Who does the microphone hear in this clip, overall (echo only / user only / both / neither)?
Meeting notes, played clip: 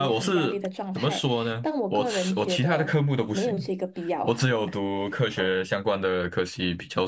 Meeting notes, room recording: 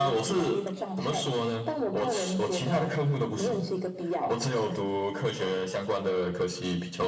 echo only